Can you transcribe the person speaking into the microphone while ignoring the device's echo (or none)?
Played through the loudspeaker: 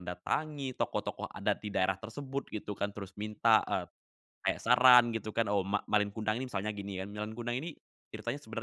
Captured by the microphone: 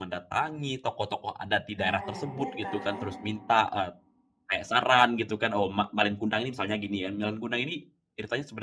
Nah, iya kan.